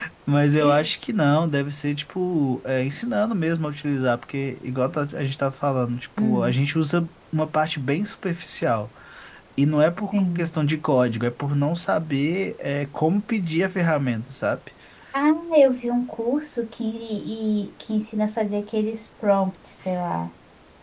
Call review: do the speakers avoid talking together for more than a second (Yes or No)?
Yes